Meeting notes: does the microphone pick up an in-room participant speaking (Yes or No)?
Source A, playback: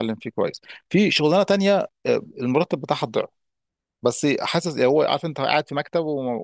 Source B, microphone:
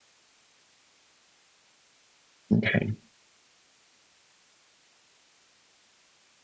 Yes